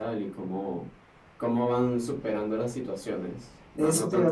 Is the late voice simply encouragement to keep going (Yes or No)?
No